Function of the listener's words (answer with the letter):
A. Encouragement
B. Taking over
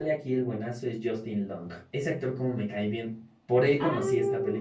B